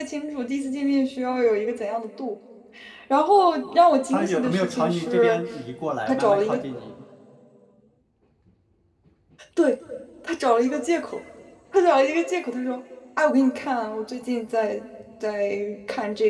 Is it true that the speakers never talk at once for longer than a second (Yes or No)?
No